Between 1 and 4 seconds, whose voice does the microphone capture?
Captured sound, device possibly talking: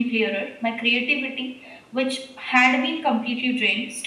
echo only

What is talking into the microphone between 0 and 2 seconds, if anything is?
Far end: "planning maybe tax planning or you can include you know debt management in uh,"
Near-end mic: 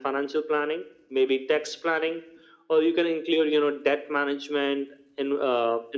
echo only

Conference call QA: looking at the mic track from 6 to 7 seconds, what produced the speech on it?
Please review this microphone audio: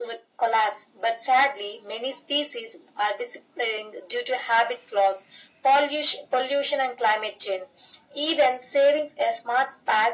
echo only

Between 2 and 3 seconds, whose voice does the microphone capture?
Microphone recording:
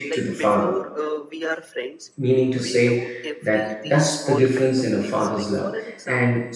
both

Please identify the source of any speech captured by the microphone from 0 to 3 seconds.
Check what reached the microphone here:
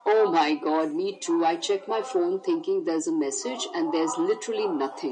both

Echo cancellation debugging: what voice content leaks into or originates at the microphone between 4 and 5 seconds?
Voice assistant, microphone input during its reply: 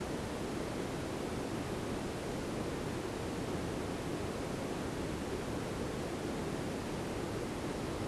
neither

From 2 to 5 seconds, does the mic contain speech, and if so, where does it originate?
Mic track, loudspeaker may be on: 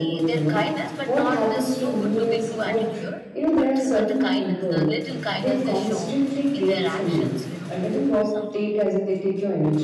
both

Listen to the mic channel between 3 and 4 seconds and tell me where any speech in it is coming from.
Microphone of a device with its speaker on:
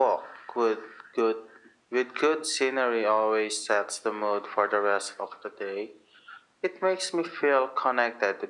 echo only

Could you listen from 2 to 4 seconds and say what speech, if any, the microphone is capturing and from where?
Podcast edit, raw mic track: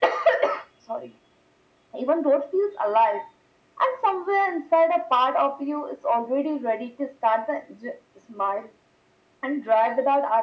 echo only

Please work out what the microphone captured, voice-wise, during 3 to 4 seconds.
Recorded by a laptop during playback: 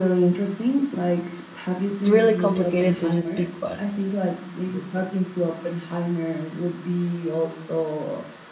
both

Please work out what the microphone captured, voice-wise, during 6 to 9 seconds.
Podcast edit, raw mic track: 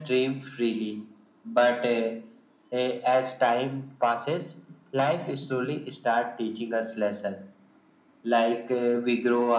echo only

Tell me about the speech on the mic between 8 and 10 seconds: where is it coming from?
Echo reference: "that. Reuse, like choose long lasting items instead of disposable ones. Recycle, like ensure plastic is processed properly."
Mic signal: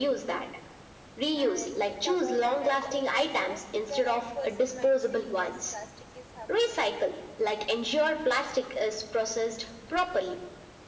echo only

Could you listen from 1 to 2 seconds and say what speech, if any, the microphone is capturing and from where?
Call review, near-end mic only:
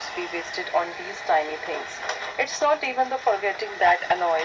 echo only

